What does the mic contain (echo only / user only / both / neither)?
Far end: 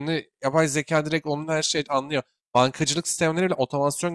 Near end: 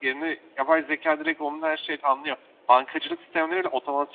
echo only